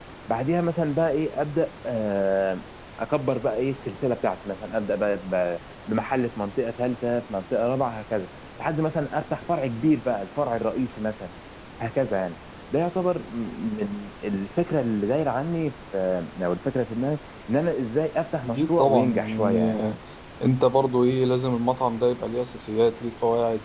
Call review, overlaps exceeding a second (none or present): present